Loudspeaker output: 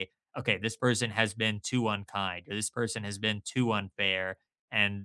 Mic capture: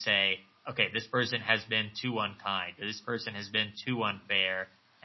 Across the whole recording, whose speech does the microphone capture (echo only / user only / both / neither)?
echo only